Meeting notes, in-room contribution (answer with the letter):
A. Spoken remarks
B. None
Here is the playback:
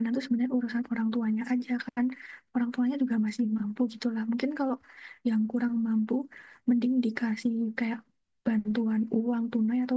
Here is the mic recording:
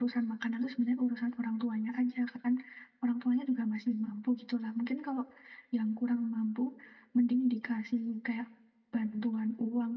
B